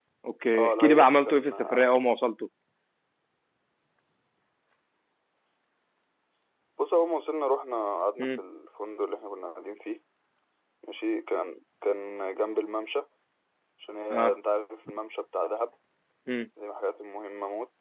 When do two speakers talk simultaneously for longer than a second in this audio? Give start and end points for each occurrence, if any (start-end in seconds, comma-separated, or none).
0.6-1.9